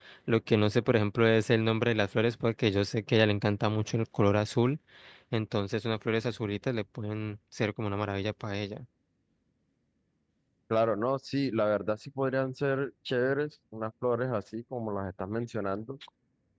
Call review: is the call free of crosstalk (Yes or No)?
Yes